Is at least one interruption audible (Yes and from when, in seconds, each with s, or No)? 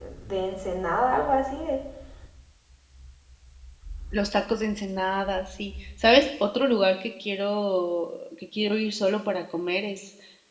No